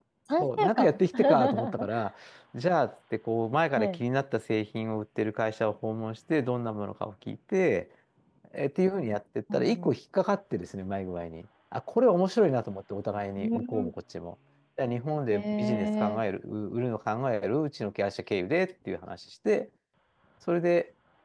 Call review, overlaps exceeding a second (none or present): present